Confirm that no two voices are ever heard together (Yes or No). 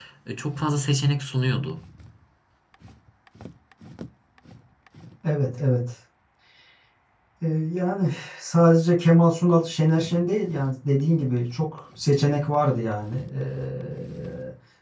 Yes